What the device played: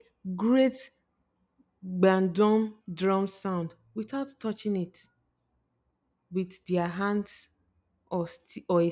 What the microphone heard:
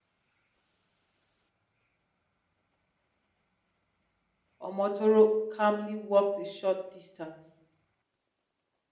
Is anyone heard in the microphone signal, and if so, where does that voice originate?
user only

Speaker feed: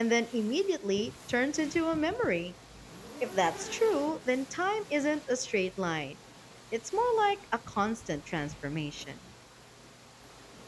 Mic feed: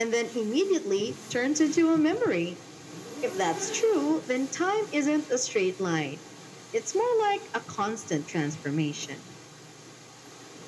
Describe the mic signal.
echo only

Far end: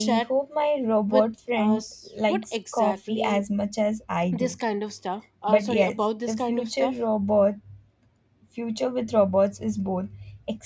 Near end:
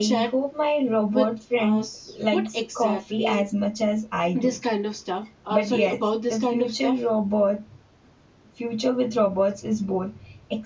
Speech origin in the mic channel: echo only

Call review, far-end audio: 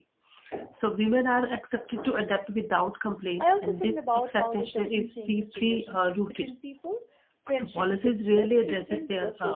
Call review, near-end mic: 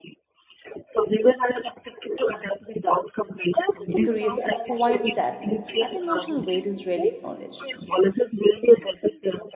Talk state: both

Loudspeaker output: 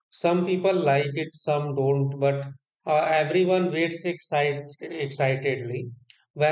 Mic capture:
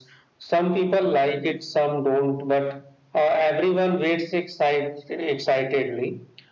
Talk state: echo only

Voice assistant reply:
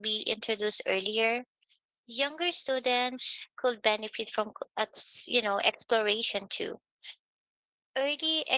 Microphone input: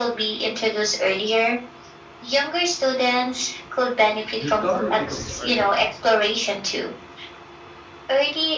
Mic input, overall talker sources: both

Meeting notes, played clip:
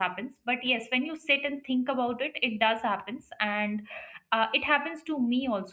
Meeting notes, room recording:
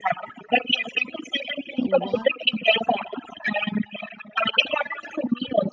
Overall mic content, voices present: both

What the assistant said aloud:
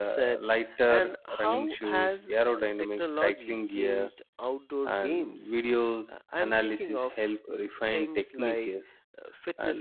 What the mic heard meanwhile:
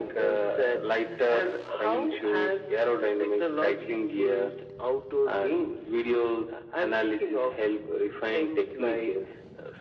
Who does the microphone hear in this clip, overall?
echo only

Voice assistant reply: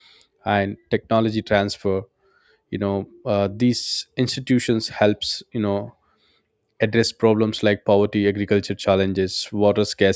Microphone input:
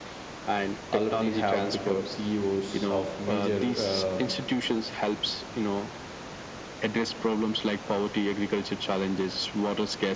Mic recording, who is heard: both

